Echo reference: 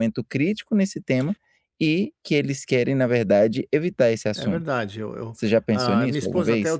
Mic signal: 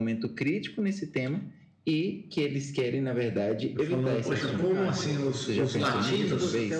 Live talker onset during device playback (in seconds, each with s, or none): 3.7 s